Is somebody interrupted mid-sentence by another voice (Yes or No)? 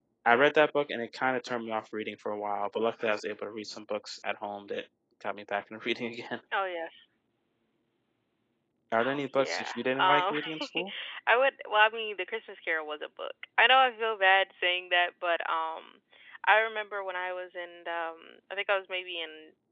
Yes